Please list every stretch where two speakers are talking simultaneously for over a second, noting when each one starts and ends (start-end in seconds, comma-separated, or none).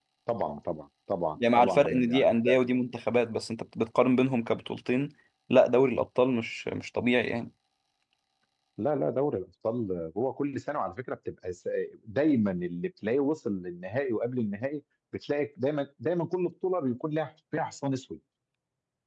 1.4-2.6